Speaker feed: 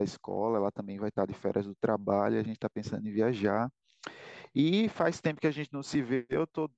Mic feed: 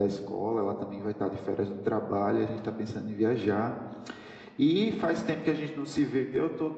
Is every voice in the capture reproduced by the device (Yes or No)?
Yes